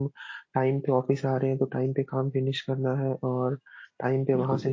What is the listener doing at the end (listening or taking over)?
taking over